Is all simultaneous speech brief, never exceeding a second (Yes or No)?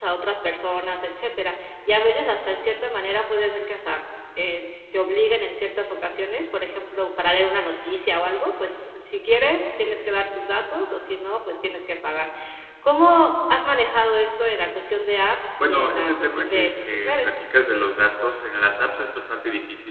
No